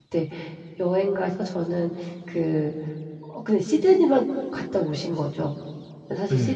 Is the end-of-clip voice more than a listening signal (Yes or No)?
No